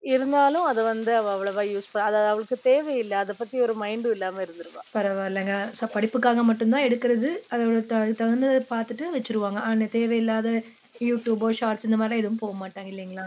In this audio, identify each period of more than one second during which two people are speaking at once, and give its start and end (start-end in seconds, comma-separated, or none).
none